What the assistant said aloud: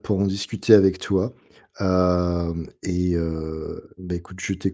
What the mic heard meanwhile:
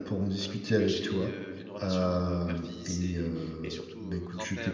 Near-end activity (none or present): present